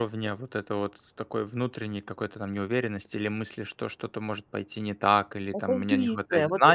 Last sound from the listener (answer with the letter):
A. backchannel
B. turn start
B